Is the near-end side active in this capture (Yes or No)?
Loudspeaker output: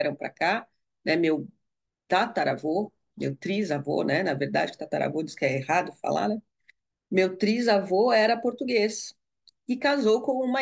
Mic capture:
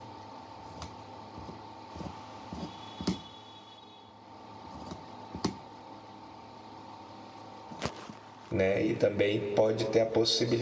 Yes